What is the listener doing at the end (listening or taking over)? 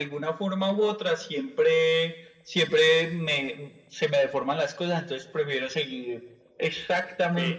taking over